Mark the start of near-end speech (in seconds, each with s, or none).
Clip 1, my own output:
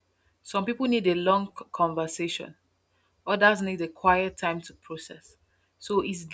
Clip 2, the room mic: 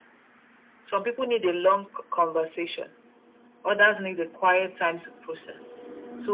none